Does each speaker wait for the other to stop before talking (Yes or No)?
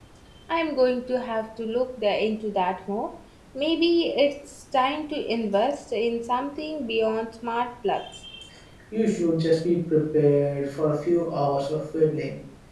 Yes